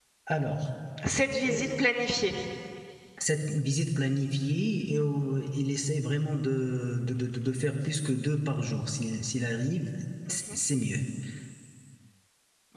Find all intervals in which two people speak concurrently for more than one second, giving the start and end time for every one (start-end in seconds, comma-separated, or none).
none